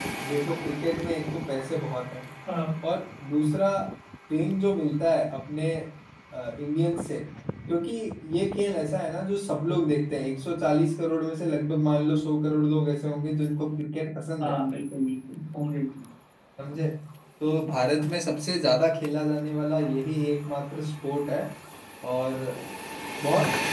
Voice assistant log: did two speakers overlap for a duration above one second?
No

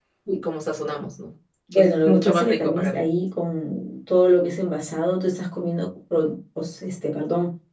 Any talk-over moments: Yes, from 1.7 s

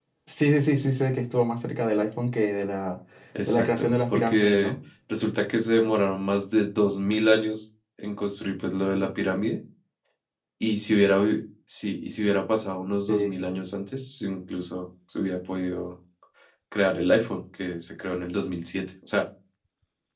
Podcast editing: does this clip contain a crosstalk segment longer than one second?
Yes, from 3.5 s

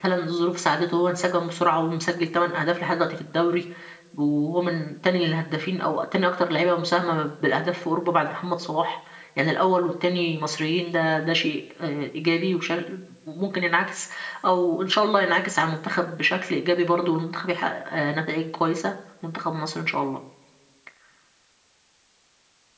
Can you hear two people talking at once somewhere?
No

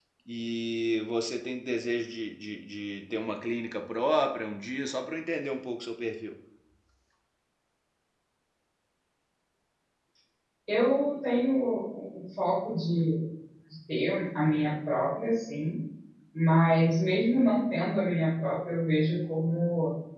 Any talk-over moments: No

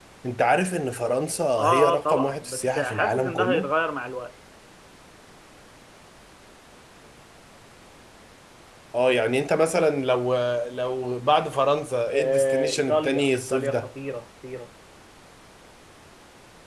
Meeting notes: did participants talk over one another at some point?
Yes, from 1.6 s

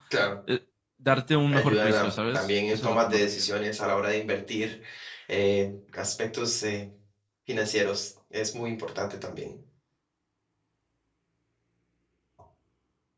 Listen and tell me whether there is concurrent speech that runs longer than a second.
Yes, from 1.5 s

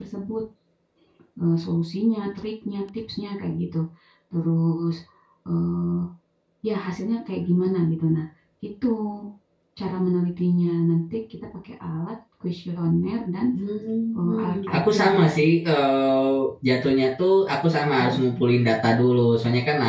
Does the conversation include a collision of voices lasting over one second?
Yes, from 14.2 s

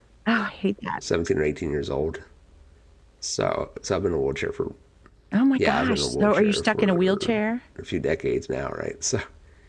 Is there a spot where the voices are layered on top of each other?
Yes, from 5.5 s

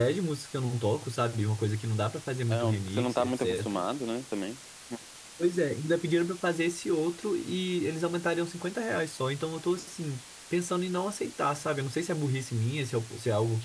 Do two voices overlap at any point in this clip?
Yes, from 2.5 s

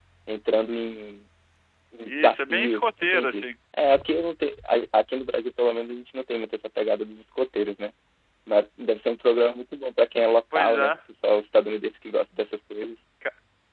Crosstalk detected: Yes, from 2.1 s

